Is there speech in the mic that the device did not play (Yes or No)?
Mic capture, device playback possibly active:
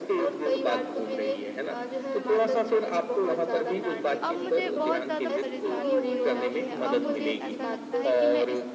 Yes